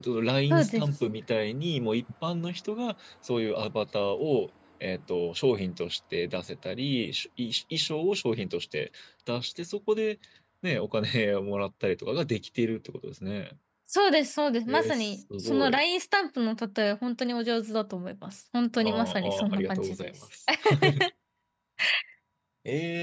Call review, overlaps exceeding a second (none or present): present